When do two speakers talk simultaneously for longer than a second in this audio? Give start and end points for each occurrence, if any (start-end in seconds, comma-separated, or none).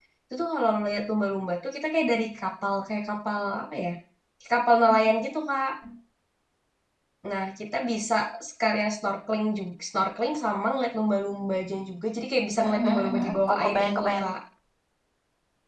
12.6-14.2